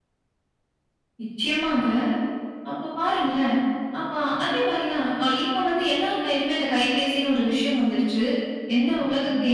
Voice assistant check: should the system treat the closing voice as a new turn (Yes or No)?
No